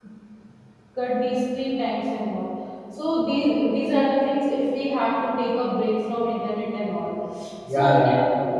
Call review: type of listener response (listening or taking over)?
taking over